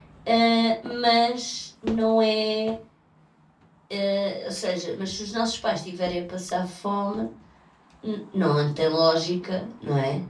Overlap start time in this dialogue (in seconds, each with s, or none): none